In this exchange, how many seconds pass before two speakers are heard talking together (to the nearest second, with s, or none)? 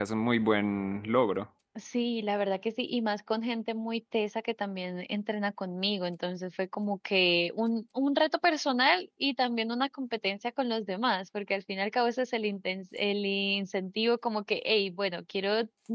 none